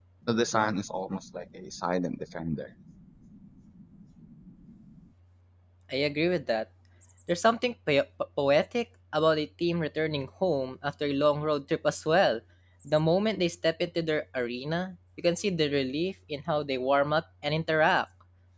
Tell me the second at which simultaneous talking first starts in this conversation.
none

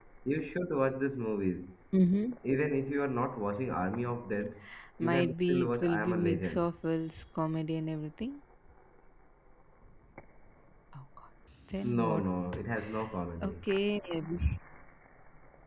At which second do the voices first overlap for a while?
5.0 s

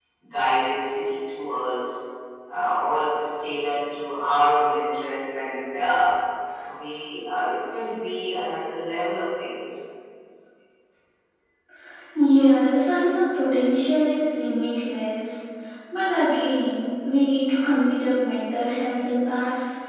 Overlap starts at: none

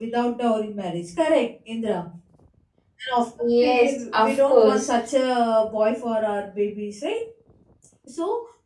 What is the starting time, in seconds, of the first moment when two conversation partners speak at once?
3.6 s

